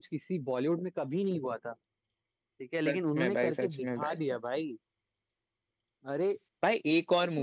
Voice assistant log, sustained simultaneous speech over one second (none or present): present